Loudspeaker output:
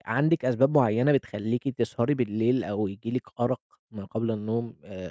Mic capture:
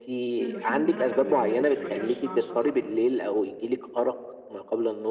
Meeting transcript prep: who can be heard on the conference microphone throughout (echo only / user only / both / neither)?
both